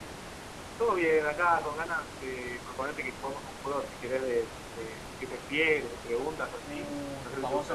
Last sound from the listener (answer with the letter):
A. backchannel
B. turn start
B